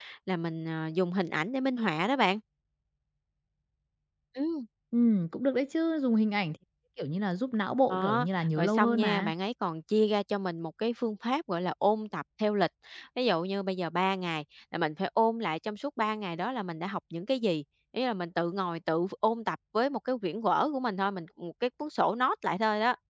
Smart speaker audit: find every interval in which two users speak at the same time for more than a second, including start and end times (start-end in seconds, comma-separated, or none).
7.9-9.3